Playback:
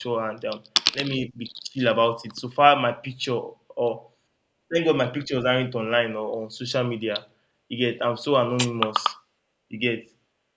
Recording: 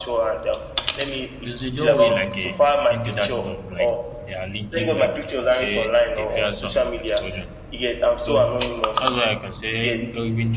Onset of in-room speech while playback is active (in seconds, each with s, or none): 1.4 s